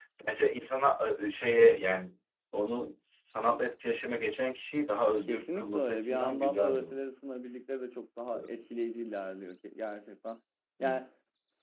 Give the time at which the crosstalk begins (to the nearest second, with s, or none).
5 s